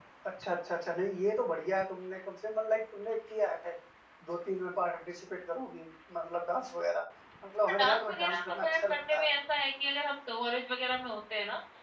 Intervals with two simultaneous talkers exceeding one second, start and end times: 7.8-9.3

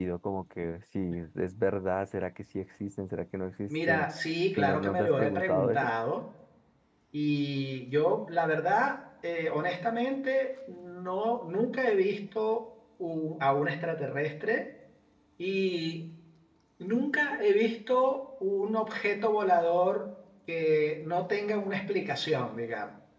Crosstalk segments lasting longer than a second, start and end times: 4.6-5.9

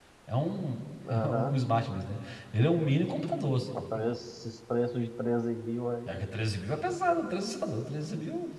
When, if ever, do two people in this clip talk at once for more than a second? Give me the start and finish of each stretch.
none

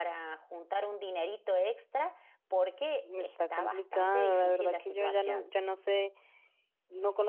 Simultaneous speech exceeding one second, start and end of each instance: 3.2-5.5

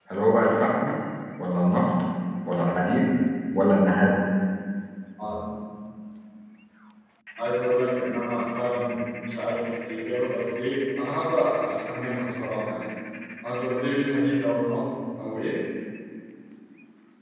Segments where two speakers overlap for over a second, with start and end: none

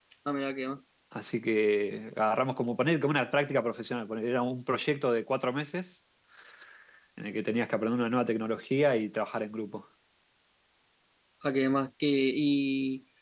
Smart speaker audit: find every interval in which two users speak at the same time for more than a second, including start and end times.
none

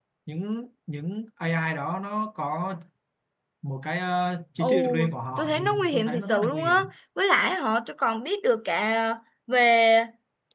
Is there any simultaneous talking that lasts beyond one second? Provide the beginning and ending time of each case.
5.4-6.9

